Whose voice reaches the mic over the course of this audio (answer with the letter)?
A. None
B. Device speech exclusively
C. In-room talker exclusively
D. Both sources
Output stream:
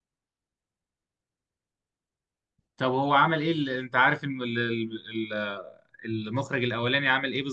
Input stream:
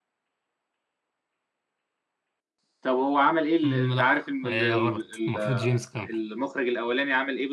D